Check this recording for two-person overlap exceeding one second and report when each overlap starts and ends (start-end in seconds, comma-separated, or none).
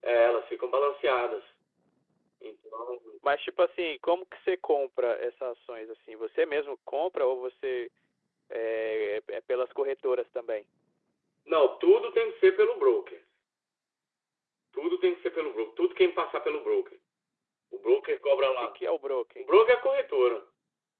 none